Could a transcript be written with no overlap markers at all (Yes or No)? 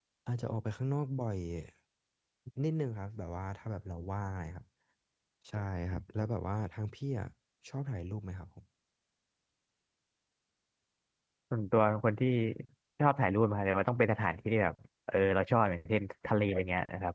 Yes